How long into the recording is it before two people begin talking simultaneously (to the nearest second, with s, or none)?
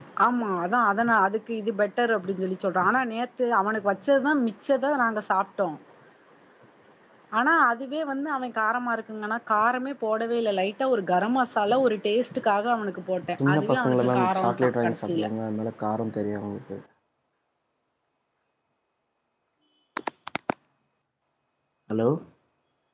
13 s